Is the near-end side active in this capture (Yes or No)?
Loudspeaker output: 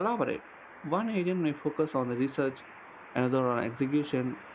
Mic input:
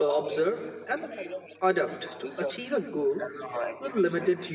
Yes